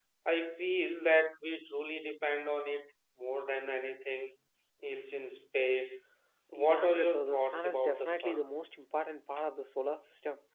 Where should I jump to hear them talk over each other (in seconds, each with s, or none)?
6.5 s